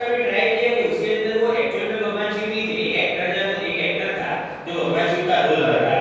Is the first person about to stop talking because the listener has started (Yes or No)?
No